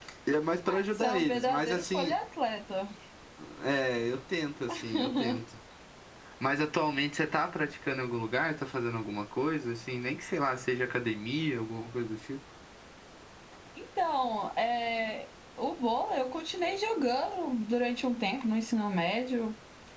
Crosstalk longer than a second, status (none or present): present